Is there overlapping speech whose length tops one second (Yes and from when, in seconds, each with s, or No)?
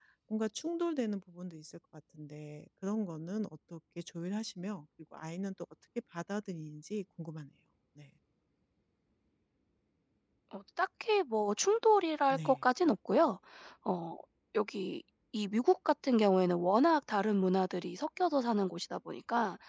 No